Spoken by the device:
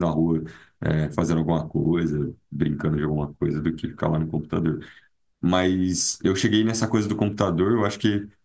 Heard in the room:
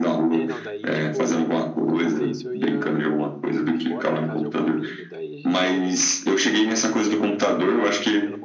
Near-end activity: present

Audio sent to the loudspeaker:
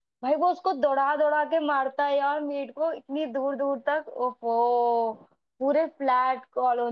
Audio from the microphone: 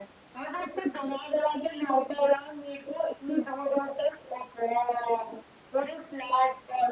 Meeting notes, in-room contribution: none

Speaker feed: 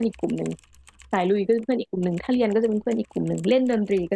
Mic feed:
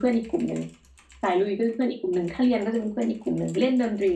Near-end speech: none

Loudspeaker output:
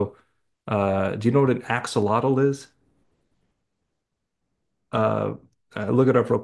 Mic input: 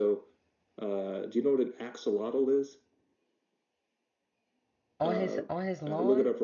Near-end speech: present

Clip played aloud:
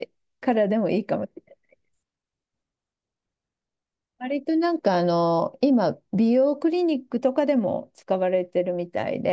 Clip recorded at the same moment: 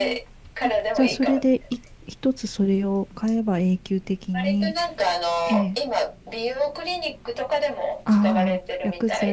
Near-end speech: present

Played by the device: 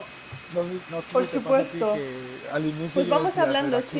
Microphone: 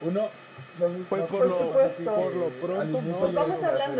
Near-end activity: present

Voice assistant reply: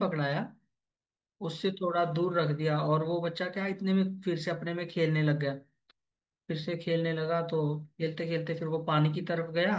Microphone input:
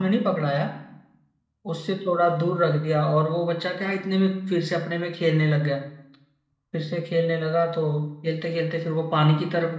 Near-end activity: none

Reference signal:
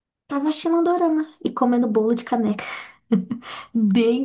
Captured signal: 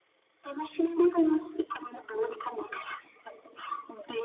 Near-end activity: none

